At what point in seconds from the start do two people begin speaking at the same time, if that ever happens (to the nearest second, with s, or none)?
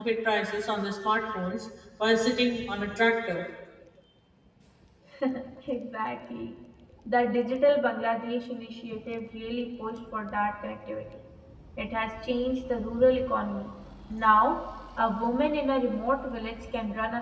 none